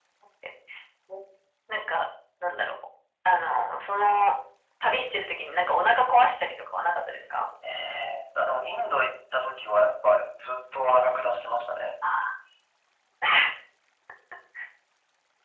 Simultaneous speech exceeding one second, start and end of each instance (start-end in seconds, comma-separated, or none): none